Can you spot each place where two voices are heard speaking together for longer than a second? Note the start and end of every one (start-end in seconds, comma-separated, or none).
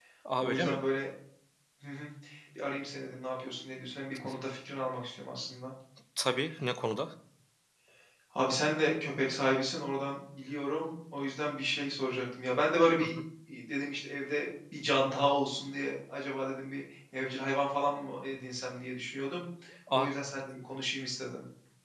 none